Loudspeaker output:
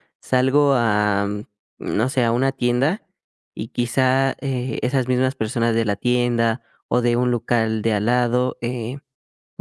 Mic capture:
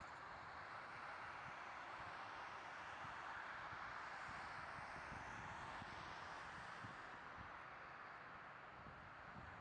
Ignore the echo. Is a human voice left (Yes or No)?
No